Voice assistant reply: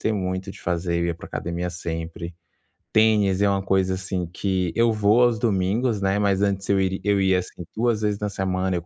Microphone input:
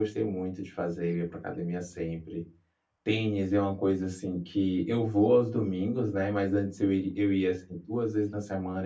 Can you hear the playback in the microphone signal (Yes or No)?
Yes